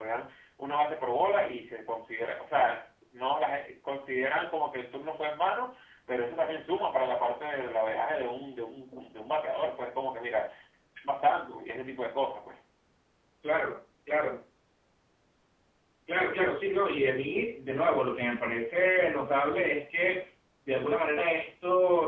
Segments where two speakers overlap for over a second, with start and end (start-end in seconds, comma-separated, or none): none